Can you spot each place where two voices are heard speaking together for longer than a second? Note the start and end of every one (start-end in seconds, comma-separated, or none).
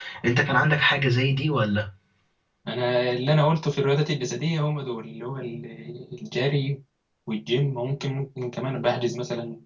none